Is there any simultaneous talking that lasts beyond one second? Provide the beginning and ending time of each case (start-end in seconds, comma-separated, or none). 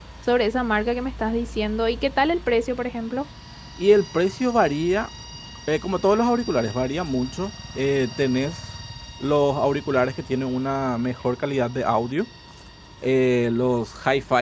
none